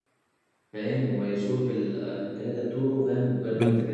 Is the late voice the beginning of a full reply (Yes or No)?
Yes